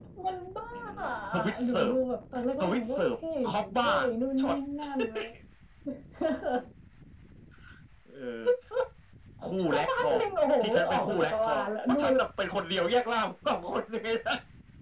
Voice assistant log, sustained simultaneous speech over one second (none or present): present